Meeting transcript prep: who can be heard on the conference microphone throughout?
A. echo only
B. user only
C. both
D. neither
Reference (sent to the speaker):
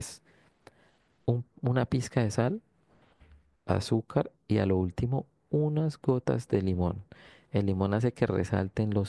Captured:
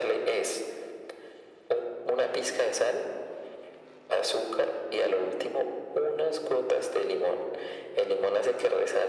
A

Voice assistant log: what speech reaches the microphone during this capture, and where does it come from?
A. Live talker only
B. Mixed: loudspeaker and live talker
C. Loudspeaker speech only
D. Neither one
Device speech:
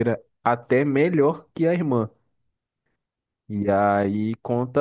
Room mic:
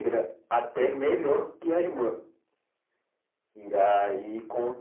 C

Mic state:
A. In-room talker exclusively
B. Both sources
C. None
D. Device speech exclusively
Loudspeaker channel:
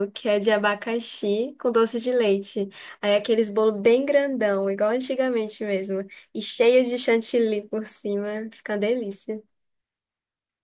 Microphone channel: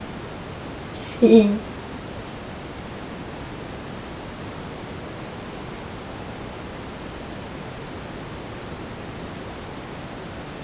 A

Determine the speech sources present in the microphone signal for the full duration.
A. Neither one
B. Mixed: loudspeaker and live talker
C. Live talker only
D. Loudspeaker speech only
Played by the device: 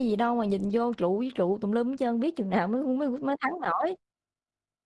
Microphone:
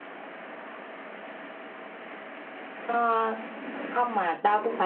C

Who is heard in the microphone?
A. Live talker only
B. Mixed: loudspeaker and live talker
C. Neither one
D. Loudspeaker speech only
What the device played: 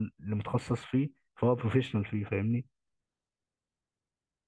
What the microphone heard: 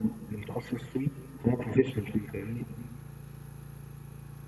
D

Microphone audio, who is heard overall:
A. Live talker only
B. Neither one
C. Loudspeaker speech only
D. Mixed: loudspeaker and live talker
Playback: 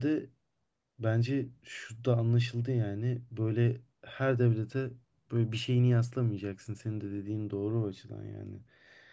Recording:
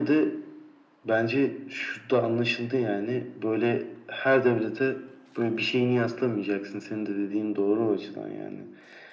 C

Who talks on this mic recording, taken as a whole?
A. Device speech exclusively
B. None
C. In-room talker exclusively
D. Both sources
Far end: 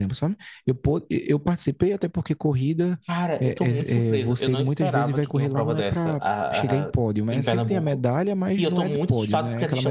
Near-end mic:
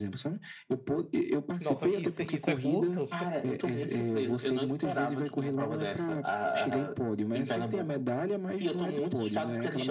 D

